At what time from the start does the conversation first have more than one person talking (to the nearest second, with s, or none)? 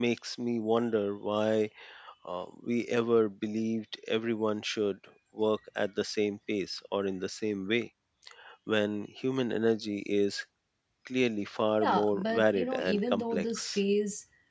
12 s